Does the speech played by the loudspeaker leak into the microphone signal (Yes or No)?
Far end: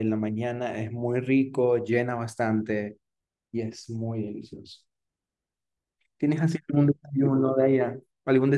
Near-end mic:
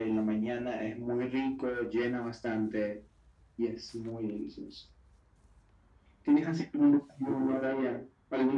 Yes